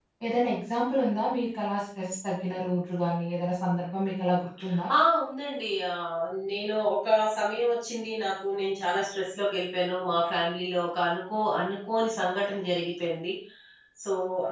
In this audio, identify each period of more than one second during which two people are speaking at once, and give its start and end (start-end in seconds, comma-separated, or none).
none